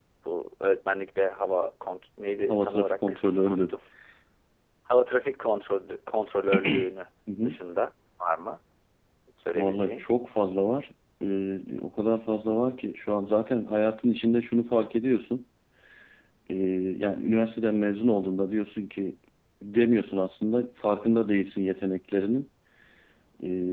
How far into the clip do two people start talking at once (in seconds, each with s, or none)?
2.5 s